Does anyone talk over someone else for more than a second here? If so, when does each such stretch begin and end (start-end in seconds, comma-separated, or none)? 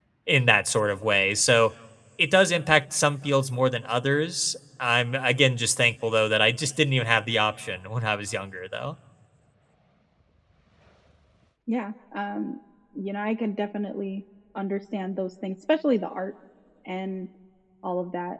none